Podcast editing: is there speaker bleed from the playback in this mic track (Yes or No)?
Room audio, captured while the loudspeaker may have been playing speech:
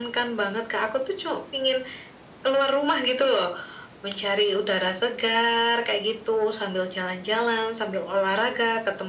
Yes